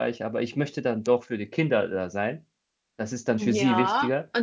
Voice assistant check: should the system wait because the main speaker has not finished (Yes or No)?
No